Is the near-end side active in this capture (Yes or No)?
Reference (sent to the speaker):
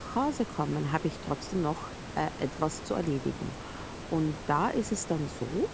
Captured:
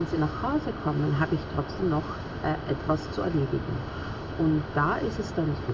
No